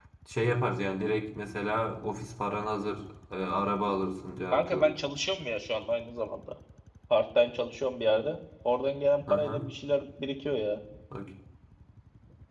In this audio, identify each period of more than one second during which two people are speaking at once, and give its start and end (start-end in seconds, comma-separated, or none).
none